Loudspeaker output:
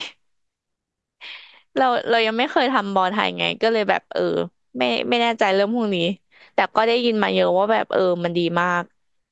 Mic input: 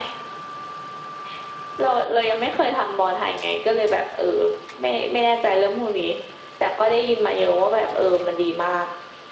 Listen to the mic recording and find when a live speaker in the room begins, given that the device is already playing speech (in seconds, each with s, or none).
none